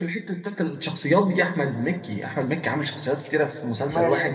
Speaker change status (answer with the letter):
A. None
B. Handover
B